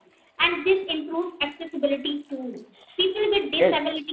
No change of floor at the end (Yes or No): Yes